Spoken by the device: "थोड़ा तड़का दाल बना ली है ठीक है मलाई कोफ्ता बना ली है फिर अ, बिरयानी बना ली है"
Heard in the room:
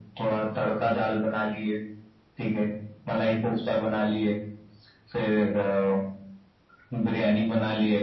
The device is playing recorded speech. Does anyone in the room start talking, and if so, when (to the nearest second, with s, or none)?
none